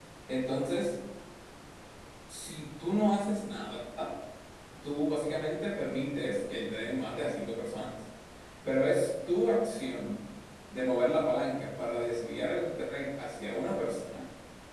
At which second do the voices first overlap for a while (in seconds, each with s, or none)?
none